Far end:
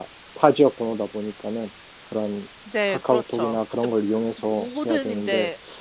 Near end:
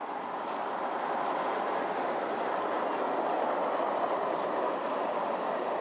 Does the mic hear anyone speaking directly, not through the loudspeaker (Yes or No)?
No